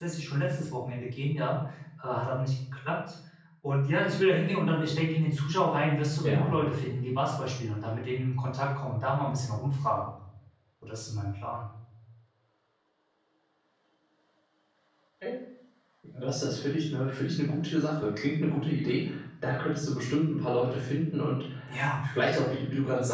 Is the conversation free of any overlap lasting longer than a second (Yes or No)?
Yes